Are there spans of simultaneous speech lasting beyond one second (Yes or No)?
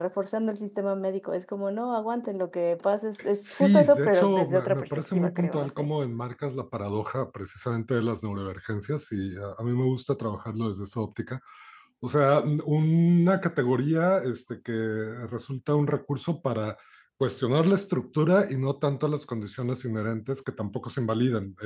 Yes